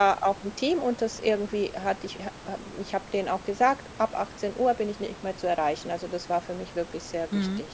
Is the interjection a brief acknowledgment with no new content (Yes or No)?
No